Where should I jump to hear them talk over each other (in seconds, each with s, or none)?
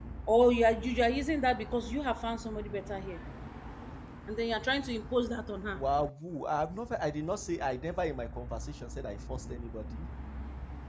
none